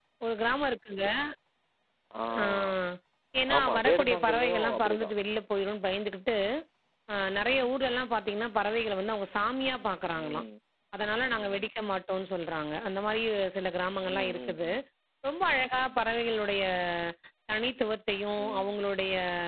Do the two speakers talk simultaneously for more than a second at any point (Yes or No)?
Yes